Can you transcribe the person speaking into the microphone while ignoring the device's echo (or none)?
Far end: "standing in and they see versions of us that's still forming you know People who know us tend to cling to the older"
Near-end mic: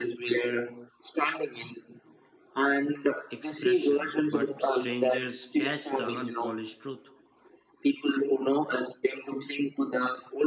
expression, but strangers catch the unpolished truth.